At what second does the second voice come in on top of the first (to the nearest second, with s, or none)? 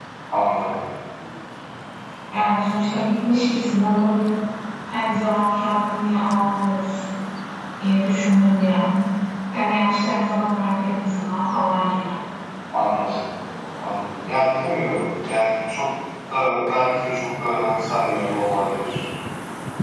none